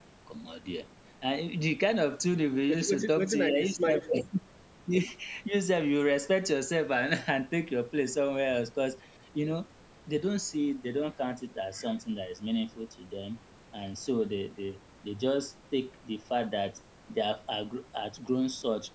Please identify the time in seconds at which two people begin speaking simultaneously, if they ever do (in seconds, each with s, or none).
2.7 s